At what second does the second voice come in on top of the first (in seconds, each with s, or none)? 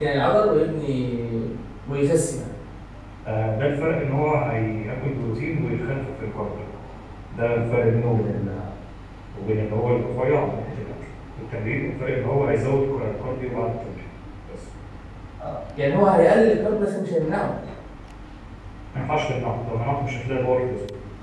none